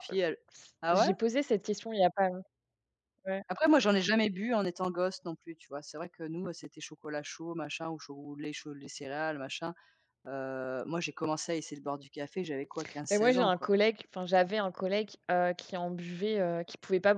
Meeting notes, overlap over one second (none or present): none